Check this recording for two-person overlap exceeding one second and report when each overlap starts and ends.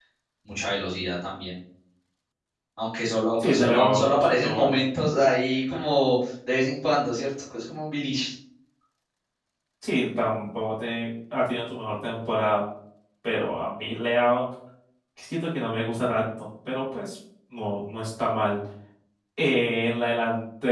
3.4-4.8

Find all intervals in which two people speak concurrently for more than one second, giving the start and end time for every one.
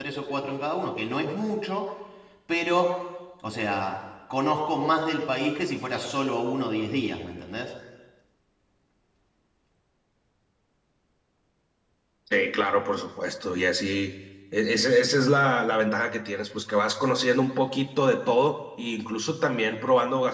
none

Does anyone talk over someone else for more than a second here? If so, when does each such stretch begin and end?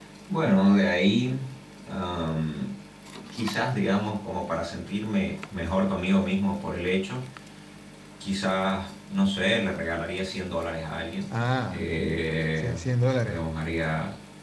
none

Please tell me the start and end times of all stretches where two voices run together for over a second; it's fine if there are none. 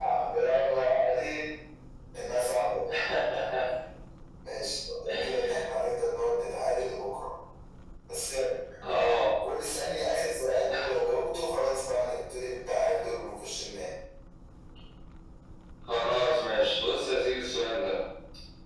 none

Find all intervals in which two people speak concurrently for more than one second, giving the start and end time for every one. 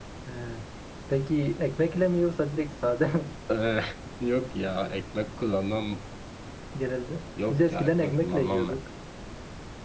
7.5-8.8

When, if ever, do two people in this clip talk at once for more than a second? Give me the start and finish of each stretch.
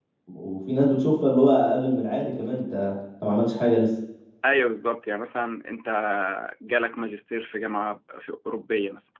none

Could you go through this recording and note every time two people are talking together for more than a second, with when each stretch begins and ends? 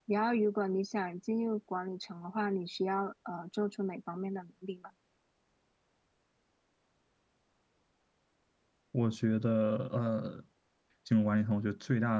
none

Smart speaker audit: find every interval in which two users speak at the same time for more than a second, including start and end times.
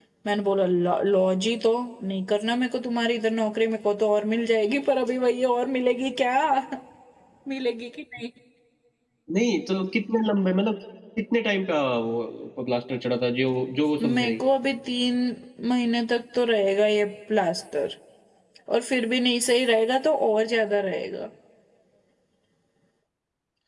none

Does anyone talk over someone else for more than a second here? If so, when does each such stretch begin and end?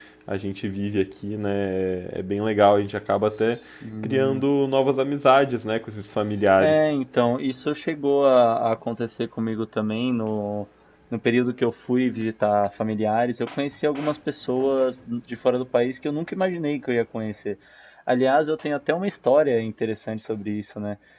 none

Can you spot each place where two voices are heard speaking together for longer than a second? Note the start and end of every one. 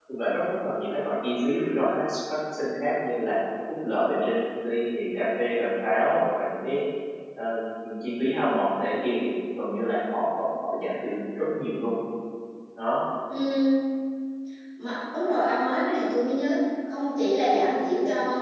none

